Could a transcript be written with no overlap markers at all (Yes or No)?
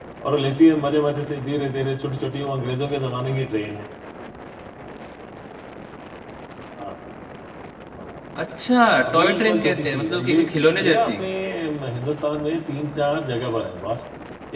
No